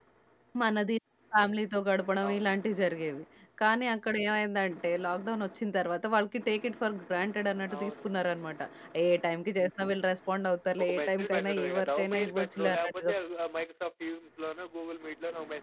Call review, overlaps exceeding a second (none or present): present